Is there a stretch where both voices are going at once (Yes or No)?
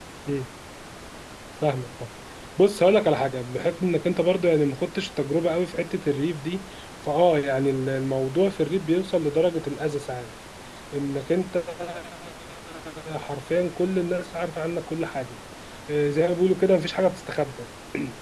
No